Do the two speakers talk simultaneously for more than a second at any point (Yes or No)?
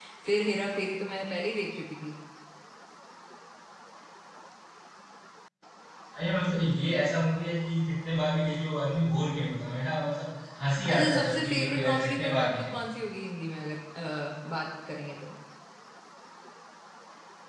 Yes